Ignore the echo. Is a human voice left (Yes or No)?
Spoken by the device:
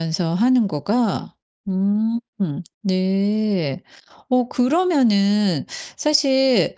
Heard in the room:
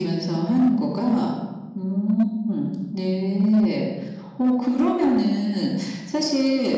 No